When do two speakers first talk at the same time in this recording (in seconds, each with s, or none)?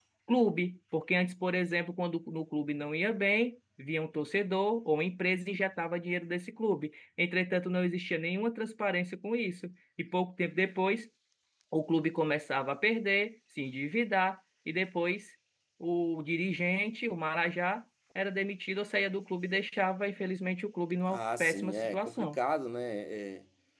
21.1 s